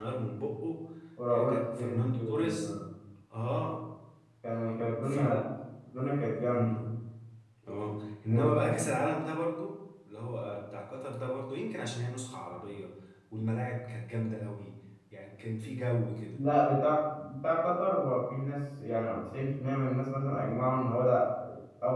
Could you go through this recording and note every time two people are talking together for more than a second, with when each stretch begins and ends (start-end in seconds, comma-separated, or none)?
1.3-2.7